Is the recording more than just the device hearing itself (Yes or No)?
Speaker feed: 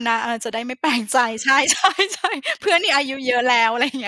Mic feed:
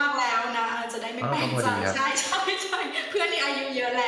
Yes